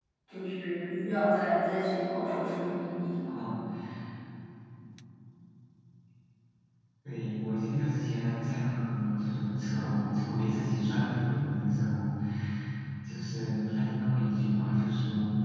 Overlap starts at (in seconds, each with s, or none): none